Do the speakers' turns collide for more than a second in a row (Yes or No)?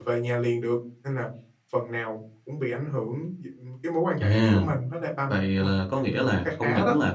Yes